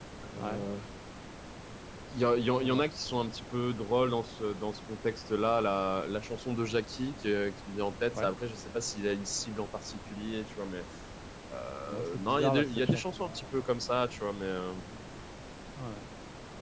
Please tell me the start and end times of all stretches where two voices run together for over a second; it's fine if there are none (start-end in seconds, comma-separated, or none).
11.9-13.6